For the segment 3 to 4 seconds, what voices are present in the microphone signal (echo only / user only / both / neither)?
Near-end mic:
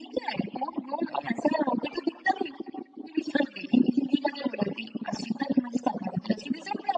echo only